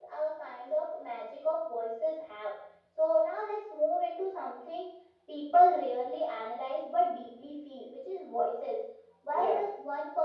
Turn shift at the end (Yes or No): No